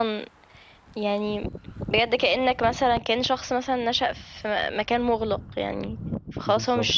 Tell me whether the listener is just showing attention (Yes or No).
Yes